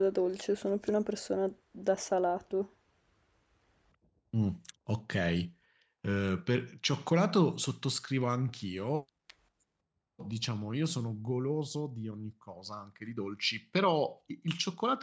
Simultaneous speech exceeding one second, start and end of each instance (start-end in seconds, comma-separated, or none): none